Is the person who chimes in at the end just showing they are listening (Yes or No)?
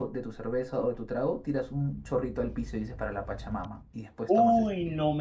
No